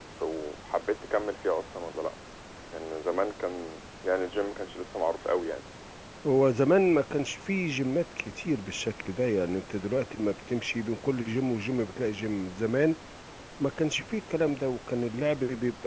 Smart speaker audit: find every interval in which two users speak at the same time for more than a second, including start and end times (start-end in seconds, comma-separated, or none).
none